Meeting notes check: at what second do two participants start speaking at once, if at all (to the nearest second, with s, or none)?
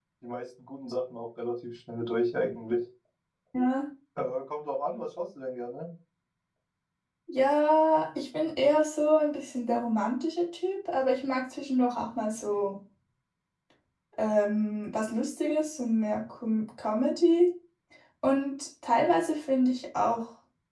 none